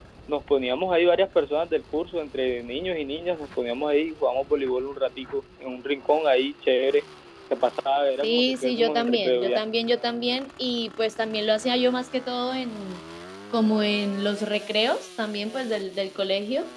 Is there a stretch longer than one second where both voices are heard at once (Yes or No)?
Yes